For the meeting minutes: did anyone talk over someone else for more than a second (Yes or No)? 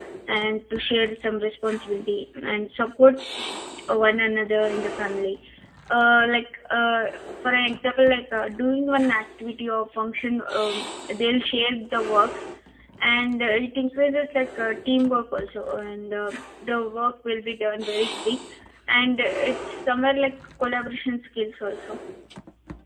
No